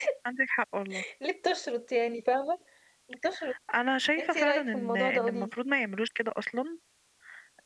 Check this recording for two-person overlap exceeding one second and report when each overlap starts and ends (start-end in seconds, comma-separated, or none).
4.2-5.5